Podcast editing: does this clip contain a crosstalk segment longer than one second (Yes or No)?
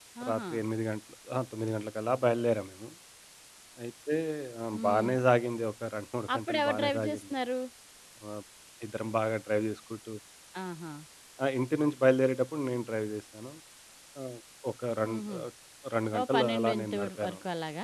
Yes